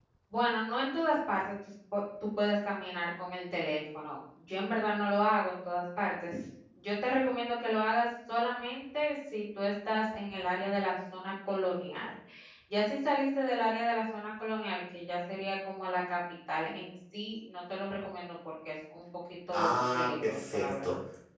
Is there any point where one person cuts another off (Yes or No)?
Yes